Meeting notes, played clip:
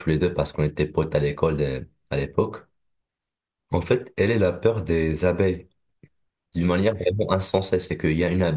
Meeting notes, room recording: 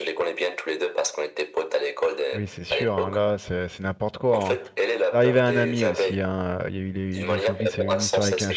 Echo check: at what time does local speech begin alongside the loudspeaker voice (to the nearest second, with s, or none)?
2 s